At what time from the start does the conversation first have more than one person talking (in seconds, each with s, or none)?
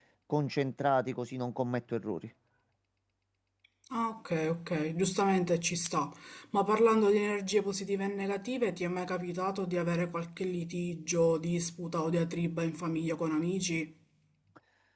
none